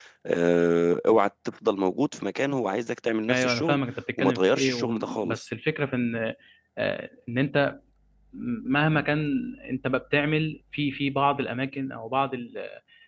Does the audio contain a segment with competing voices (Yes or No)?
Yes